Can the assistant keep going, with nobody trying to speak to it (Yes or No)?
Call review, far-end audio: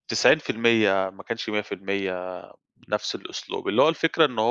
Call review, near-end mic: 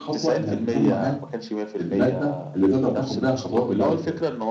No